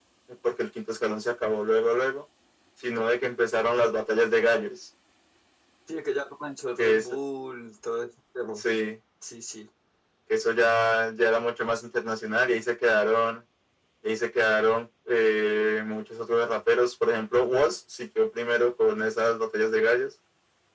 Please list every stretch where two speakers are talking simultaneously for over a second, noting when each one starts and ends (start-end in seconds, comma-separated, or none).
none